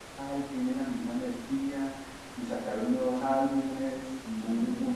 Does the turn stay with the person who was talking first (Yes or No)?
Yes